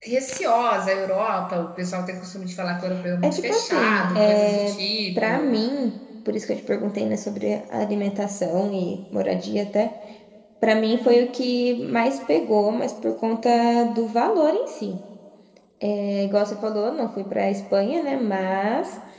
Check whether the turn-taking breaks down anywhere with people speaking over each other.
Yes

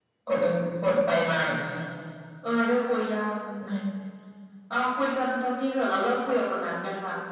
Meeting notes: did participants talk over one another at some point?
No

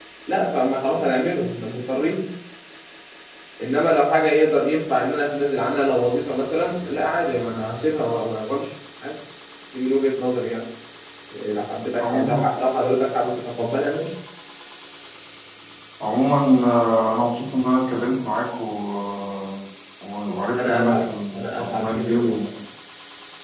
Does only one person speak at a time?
No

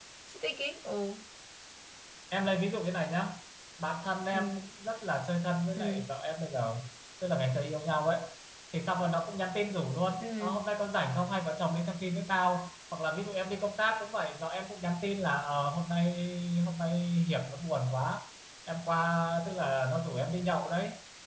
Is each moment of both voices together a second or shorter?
Yes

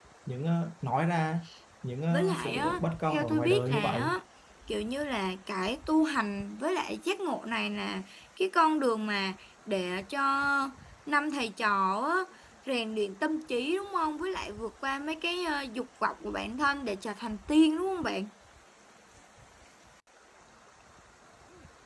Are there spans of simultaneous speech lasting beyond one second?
Yes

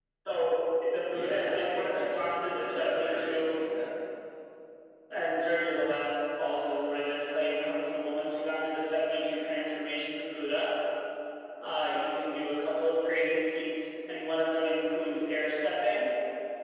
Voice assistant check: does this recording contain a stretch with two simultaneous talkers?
Yes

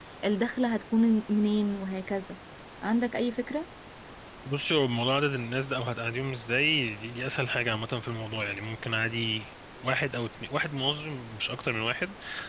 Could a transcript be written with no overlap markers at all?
Yes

